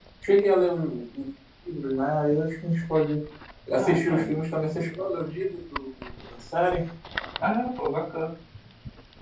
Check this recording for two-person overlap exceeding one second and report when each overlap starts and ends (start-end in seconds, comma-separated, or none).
none